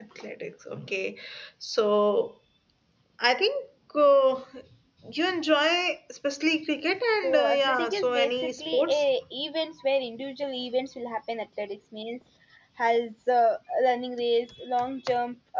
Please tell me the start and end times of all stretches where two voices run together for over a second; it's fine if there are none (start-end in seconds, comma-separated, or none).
7.2-9.0